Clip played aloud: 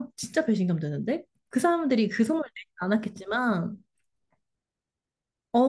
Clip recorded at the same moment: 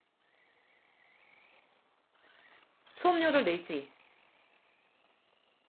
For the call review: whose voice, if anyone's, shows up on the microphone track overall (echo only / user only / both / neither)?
user only